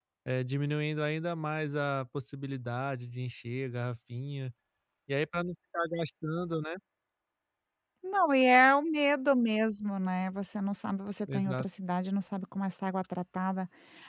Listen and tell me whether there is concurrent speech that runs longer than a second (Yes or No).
No